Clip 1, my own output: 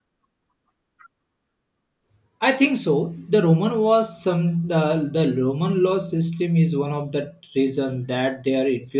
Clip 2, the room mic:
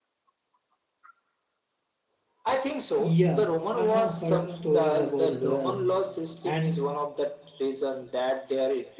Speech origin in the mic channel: both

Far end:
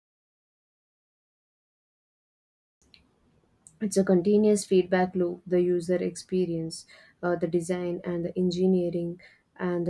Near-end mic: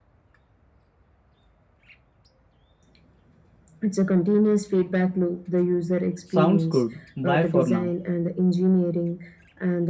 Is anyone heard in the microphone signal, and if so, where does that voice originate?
both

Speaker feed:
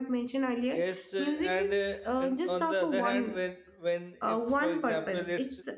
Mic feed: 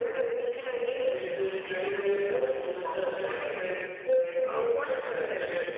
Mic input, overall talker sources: echo only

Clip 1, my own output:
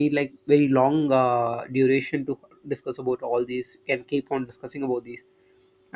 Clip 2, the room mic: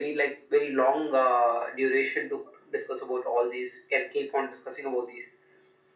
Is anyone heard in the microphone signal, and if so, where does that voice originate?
echo only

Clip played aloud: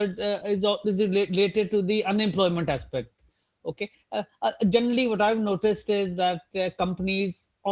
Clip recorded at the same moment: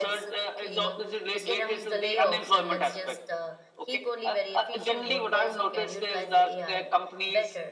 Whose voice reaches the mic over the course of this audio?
both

